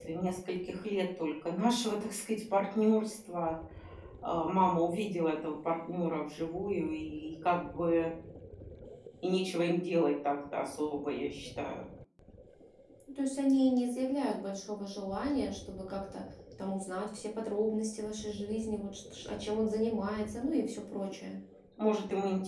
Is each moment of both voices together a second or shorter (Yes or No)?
Yes